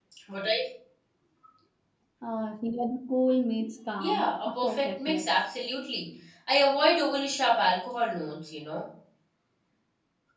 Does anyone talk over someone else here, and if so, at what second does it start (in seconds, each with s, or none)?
4.0 s